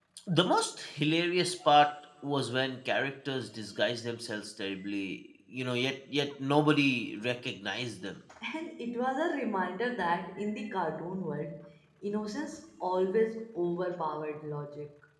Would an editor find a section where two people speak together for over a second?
No

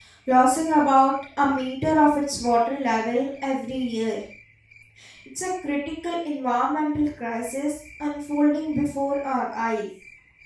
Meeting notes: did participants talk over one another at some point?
No

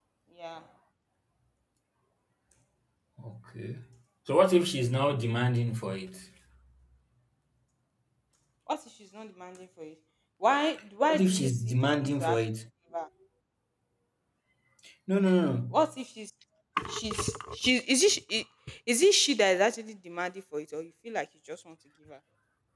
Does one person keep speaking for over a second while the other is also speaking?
Yes, from 11.1 s

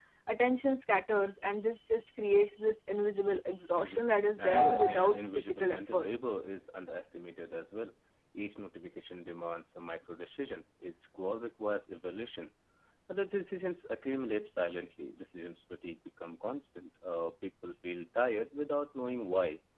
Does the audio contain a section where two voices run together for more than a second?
Yes, from 3.8 s

